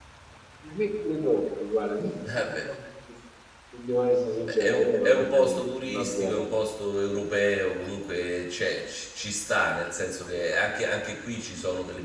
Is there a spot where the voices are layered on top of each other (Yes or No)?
Yes